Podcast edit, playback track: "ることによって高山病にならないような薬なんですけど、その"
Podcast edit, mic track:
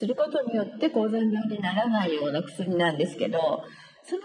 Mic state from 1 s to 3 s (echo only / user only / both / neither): echo only